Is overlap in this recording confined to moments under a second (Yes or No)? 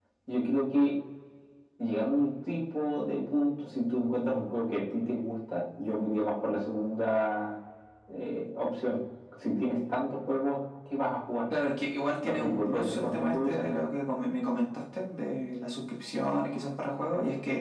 No